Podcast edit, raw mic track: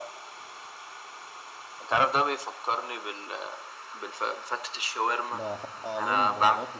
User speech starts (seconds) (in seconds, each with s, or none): 5.3 s